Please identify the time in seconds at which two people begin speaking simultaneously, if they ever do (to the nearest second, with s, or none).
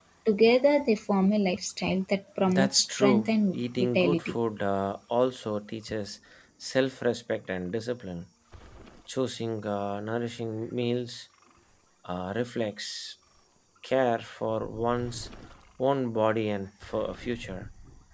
2 s